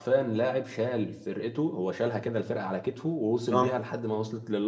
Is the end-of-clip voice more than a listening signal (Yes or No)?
No